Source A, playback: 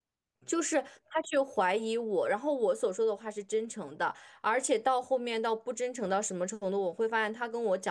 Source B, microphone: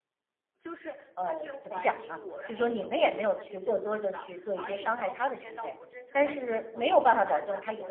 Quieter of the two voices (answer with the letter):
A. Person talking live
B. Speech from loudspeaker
B